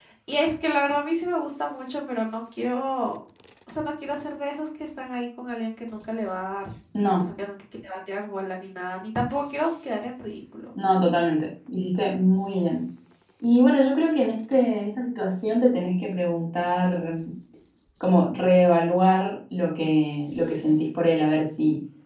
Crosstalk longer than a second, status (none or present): none